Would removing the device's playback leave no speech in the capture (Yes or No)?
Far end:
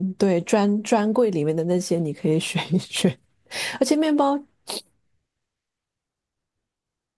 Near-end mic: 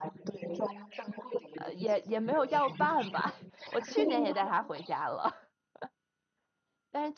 No